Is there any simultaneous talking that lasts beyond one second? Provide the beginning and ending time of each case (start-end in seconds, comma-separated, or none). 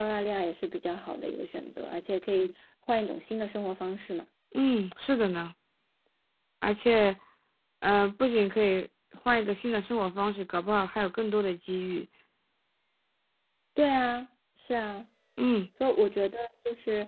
none